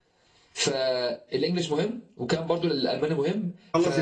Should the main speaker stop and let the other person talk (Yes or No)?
Yes